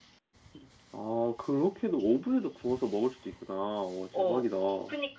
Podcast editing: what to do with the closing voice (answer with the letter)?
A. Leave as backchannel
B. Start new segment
B